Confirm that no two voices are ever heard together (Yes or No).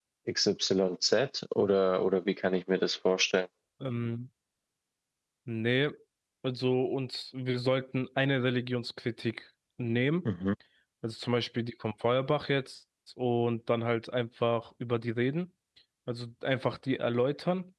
Yes